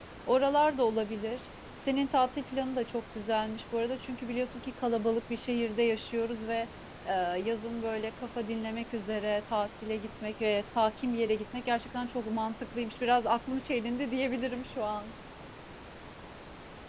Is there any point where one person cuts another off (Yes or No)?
No